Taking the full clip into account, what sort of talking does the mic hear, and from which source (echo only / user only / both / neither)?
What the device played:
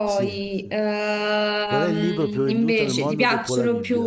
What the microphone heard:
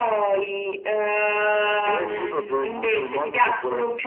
echo only